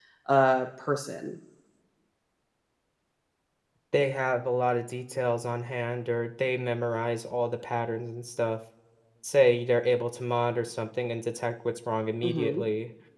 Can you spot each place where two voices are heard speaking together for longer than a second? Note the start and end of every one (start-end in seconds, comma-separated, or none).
none